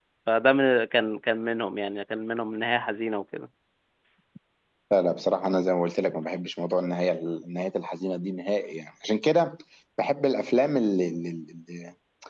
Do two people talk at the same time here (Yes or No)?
No